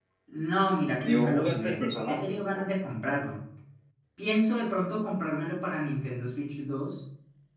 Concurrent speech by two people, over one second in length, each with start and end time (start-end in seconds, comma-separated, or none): 1.0-2.7